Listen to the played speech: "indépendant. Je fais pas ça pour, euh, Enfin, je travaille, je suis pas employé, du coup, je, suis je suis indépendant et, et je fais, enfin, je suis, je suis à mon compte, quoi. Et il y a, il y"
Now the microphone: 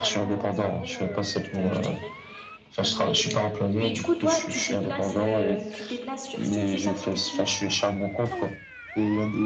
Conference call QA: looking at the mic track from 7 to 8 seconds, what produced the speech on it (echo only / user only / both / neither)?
both